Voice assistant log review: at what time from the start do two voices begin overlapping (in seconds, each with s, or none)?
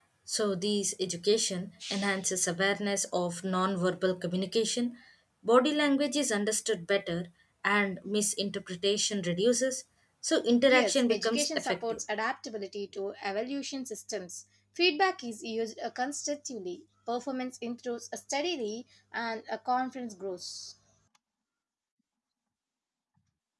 10.7 s